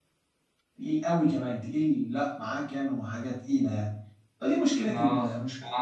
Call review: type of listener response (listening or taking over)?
listening